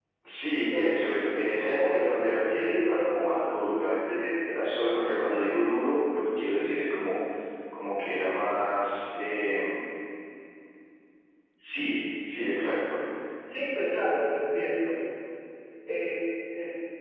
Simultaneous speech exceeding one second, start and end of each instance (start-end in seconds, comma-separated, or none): 1.6-4.1